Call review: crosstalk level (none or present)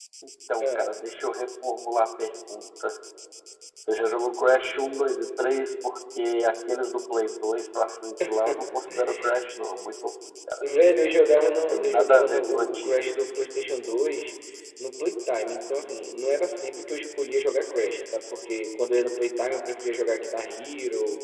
present